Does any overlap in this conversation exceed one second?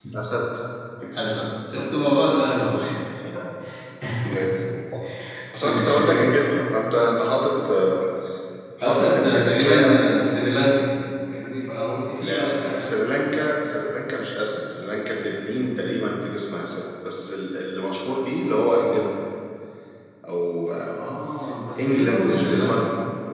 Yes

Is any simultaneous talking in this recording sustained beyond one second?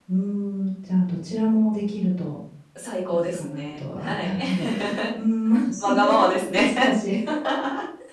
Yes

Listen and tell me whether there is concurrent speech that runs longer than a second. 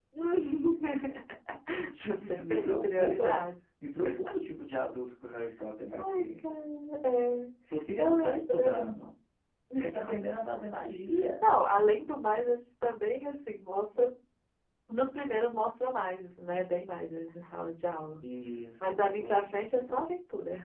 Yes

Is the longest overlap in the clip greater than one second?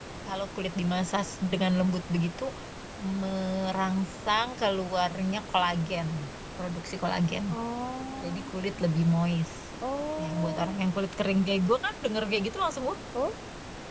No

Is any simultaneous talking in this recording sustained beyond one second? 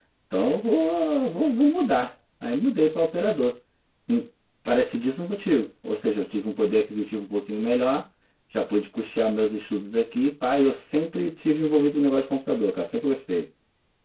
No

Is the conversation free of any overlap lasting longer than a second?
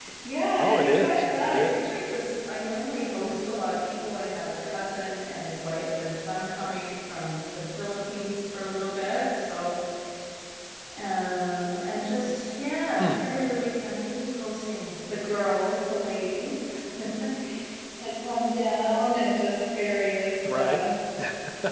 No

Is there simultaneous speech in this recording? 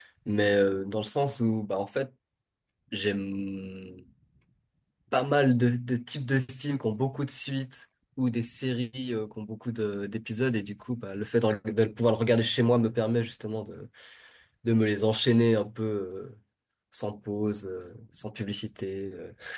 No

